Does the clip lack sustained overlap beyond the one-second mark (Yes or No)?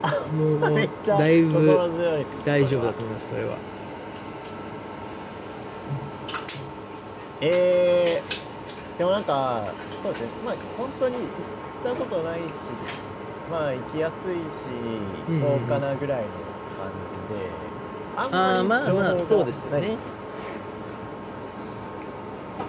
No